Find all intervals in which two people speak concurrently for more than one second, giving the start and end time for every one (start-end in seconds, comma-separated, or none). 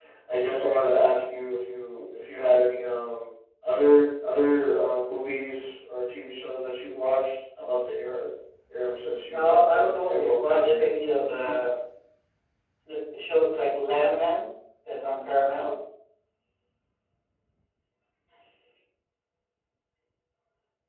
9.3-10.9